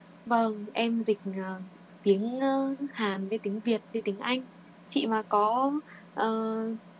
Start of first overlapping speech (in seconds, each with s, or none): none